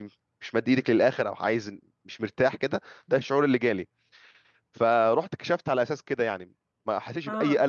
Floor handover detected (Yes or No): No